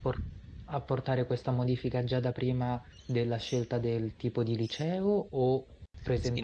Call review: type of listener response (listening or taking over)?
taking over